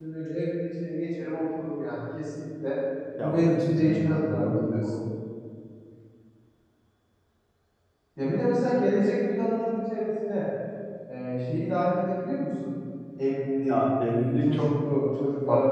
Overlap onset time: 3.2 s

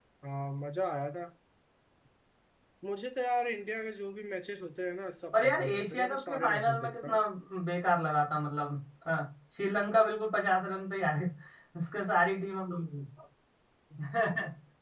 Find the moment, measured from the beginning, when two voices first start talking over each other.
5.3 s

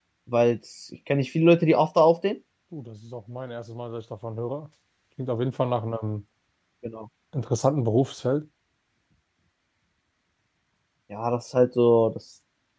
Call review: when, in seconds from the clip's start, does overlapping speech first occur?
none

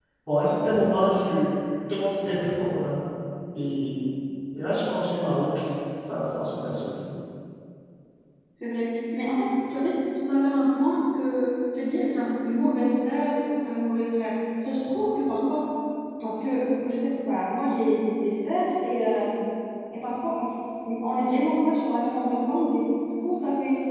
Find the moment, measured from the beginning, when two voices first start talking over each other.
none

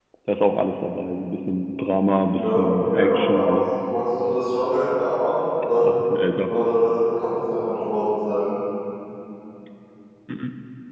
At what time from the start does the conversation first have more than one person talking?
2.3 s

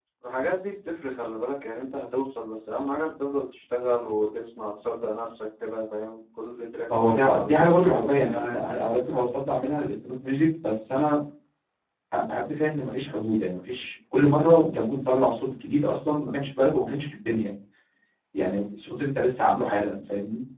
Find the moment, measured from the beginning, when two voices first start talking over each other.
6.9 s

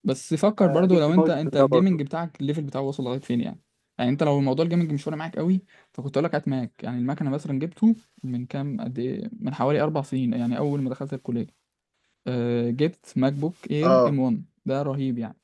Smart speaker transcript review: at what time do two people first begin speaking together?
0.6 s

